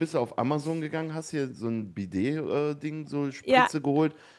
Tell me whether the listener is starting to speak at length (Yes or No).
No